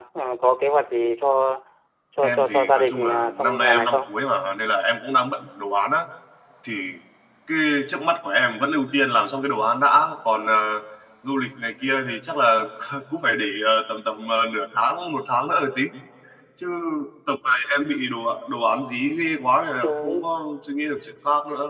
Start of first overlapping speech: 2.2 s

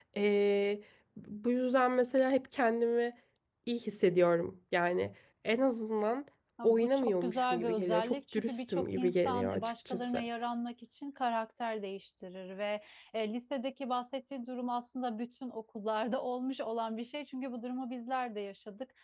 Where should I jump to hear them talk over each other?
6.6 s

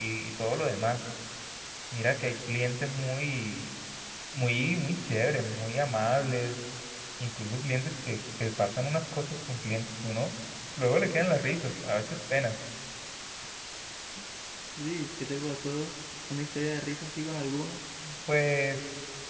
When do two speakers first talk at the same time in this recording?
none

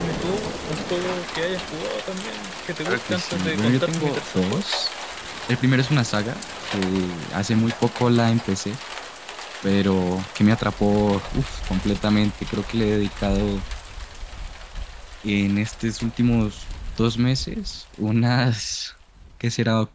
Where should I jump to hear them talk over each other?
2.8 s

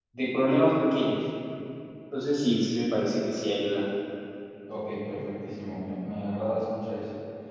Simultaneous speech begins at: none

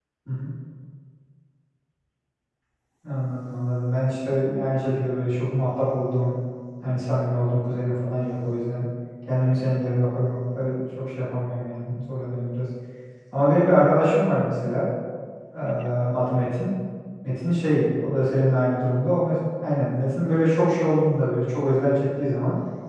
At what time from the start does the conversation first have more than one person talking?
none

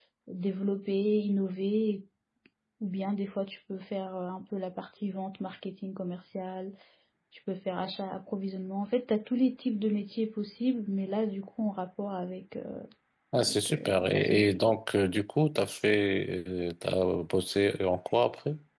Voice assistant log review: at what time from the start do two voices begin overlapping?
13.3 s

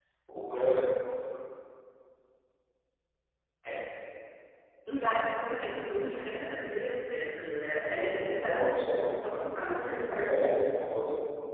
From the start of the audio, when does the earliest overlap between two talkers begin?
8.5 s

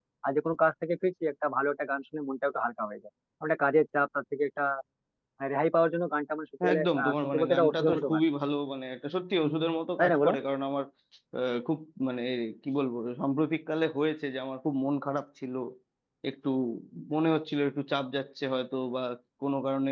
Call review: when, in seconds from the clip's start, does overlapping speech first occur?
6.6 s

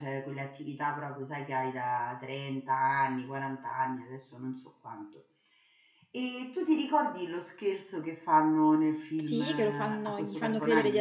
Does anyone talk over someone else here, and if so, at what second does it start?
9.2 s

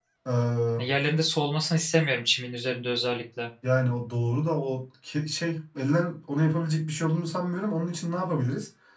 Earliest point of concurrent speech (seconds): none

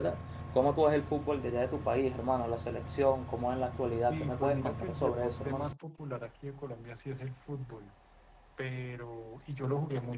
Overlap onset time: 4.1 s

